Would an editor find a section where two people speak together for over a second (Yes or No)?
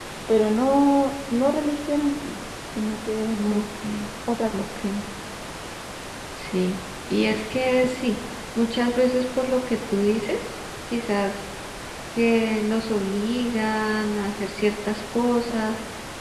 No